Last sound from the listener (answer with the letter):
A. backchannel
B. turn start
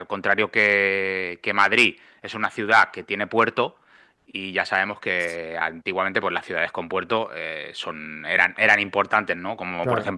A